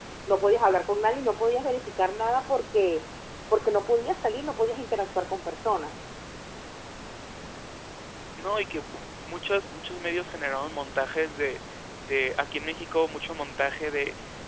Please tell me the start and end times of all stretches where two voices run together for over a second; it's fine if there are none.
none

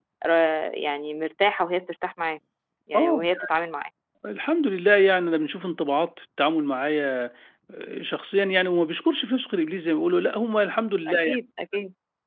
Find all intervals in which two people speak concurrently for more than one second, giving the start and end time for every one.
none

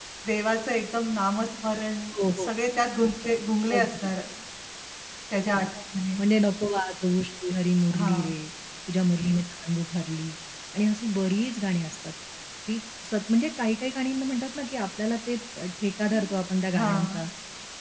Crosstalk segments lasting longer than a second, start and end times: none

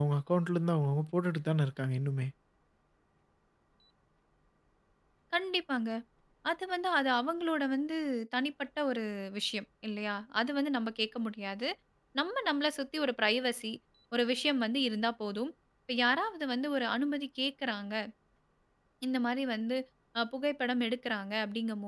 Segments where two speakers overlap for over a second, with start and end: none

